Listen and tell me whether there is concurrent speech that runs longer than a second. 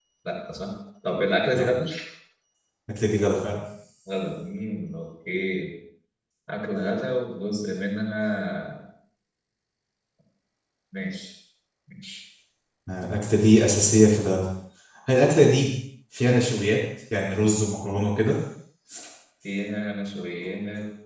No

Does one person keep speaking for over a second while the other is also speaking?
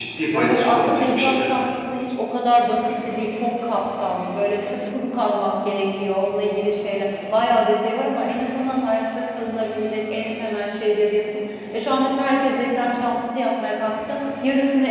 Yes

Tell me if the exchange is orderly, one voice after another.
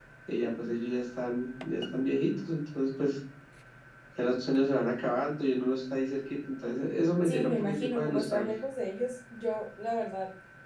No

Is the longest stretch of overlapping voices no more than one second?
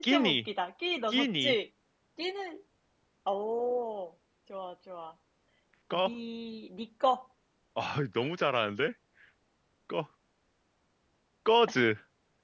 Yes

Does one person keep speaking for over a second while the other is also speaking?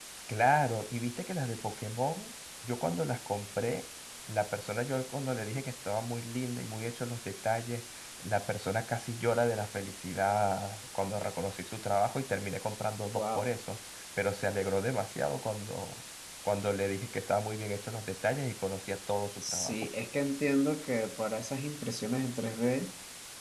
No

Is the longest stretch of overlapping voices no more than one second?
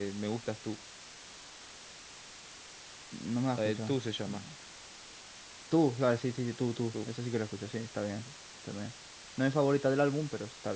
Yes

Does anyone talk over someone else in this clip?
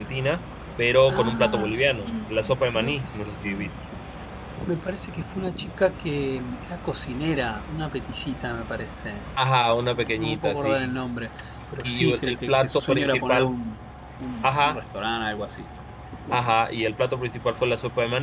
Yes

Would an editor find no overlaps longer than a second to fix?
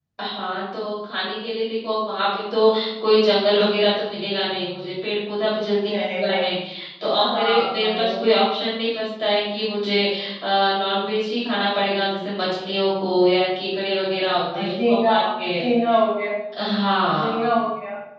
No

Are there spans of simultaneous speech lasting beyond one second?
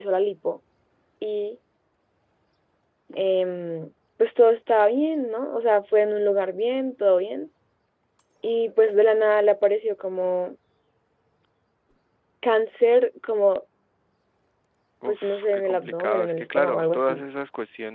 Yes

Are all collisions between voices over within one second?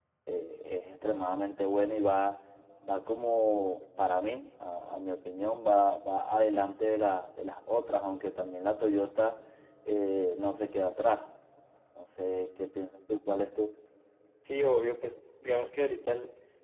Yes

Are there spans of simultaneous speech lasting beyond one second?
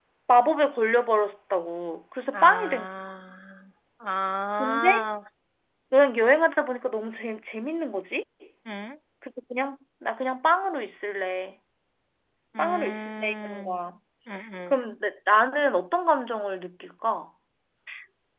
Yes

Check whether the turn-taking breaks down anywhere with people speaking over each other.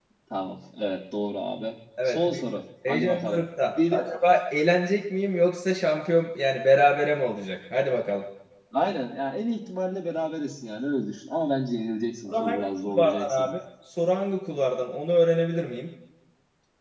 Yes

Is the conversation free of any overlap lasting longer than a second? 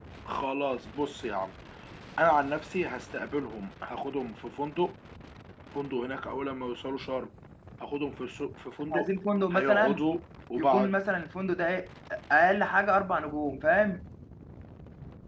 Yes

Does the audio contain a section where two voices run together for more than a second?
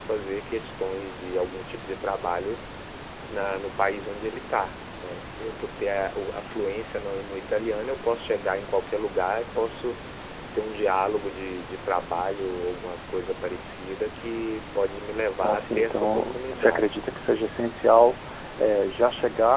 Yes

